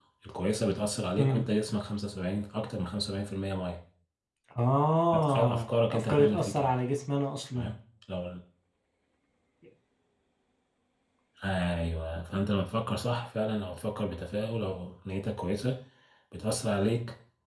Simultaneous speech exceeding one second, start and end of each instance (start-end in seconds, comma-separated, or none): 5.3-6.7